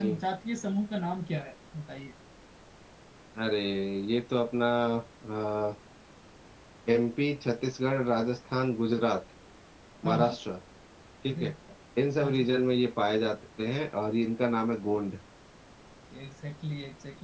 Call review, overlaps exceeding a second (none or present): none